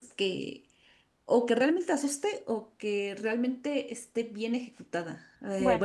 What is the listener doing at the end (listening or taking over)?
listening